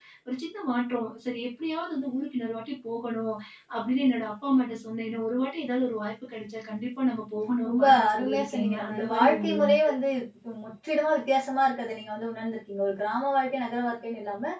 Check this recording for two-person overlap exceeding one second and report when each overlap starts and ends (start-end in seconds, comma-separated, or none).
7.7-9.9